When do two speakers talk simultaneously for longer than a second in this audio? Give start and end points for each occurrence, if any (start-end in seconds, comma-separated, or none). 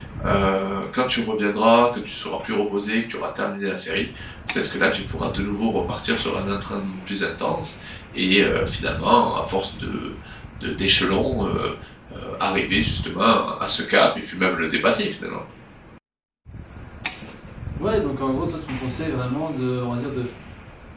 none